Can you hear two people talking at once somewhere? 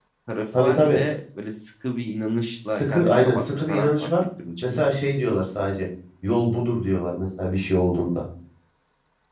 Yes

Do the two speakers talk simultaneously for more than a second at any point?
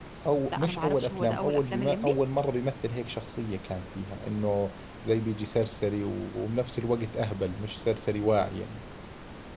Yes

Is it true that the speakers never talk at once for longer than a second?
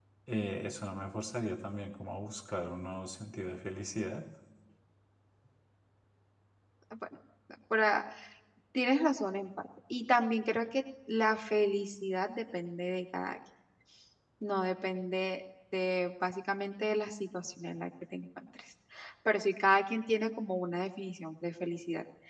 Yes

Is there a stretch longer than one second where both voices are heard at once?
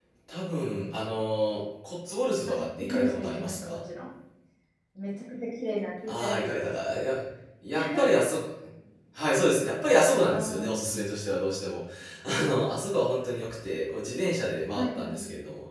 Yes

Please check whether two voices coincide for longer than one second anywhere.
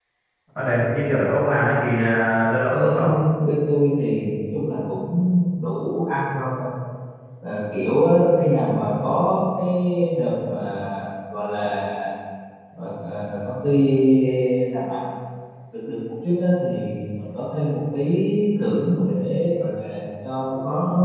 No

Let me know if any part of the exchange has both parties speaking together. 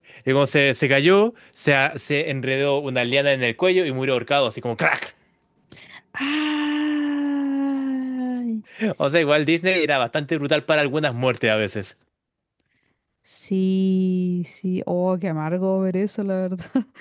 No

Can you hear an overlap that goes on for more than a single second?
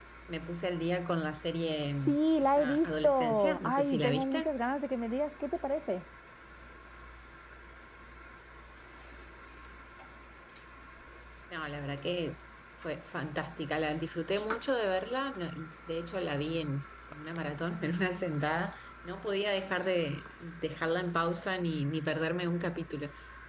Yes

